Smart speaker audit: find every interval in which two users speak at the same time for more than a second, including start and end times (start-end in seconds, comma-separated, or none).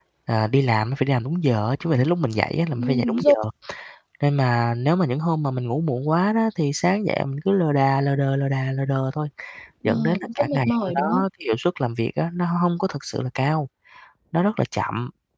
9.8-11.2